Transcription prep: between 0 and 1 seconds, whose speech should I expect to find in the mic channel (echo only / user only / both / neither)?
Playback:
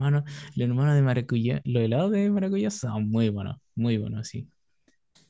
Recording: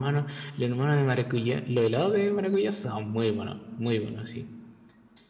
echo only